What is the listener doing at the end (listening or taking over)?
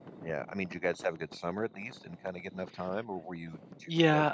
taking over